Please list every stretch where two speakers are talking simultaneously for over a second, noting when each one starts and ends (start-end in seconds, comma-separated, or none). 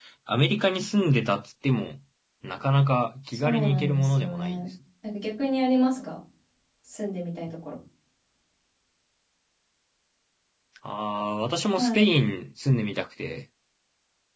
3.3-4.6